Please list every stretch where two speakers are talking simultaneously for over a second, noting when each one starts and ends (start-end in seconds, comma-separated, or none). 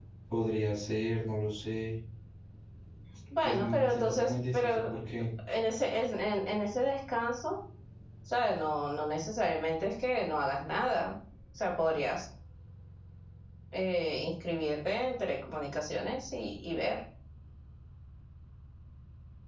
3.4-4.8